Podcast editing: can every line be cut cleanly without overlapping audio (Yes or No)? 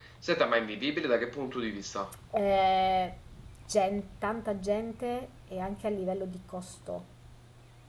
Yes